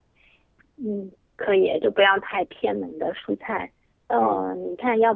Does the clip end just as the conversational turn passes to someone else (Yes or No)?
No